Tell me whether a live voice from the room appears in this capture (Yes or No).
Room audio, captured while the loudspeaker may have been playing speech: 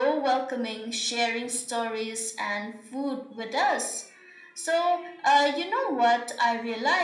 No